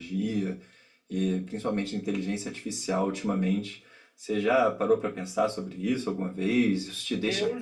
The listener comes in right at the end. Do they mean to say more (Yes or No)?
Yes